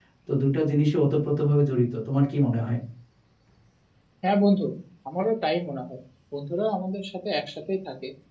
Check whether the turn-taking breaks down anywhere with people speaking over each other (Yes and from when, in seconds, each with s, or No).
No